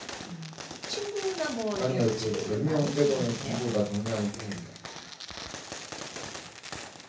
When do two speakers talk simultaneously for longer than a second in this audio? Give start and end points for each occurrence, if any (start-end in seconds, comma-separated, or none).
1.8-3.6